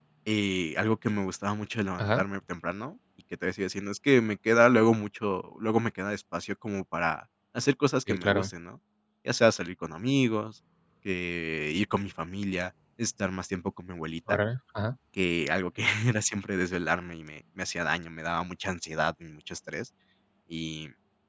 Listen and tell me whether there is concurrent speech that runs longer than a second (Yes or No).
No